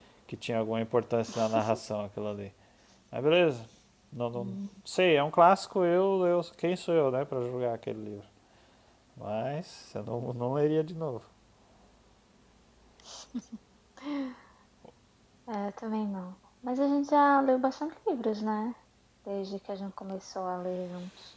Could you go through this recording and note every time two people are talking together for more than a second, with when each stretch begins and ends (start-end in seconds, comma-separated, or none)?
none